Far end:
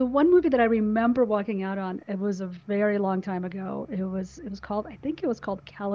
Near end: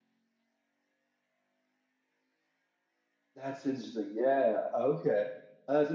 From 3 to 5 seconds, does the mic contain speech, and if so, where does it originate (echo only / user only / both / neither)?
user only